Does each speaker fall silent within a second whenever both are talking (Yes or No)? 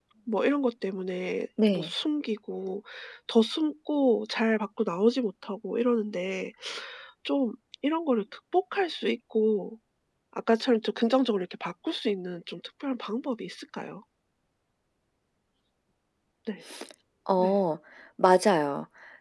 Yes